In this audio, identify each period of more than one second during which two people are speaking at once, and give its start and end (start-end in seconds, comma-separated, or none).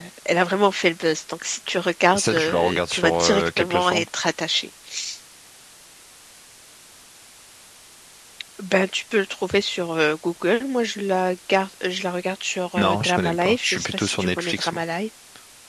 2.1-4.0, 12.8-14.8